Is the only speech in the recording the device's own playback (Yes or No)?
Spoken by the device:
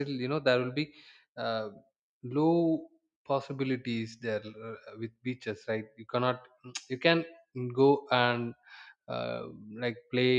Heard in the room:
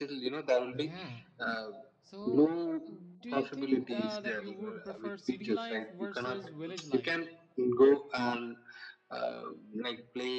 No